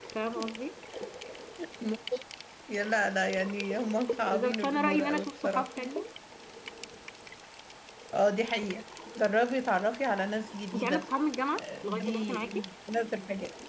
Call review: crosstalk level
present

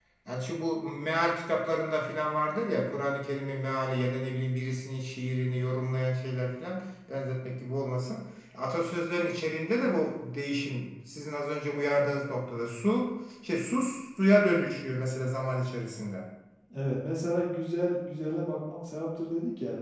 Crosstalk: none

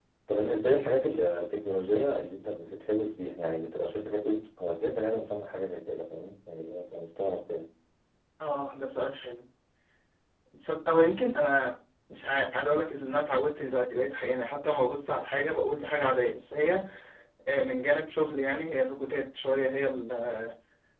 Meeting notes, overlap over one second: none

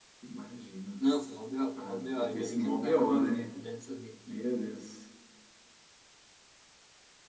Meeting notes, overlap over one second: present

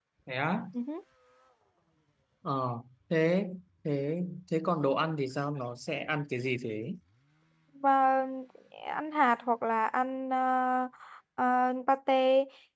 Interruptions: none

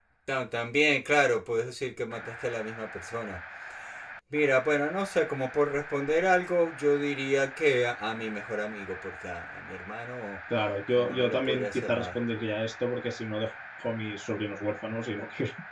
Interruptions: present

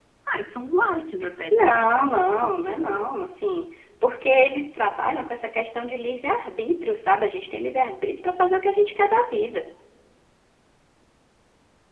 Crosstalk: present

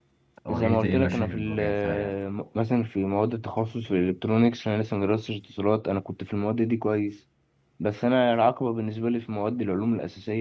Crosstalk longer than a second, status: present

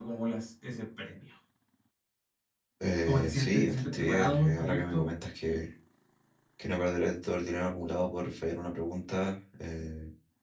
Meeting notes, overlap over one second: present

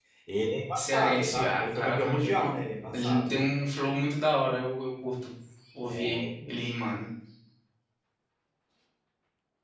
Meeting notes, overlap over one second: present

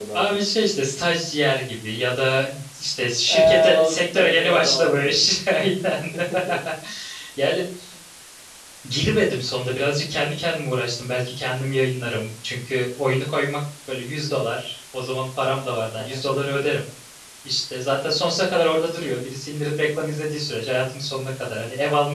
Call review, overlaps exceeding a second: present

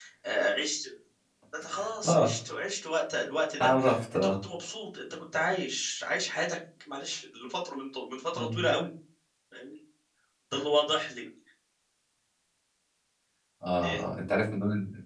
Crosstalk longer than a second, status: none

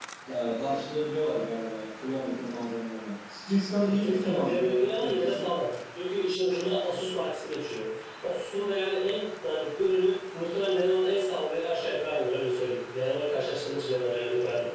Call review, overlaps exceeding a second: present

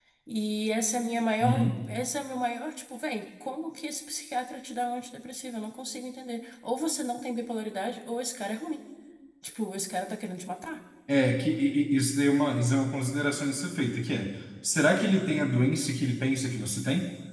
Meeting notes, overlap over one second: none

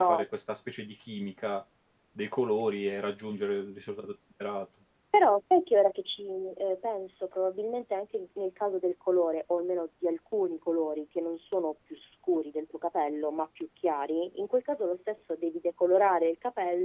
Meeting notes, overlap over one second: none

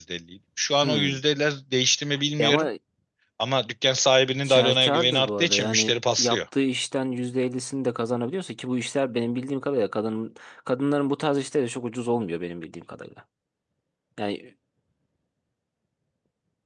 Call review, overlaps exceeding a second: present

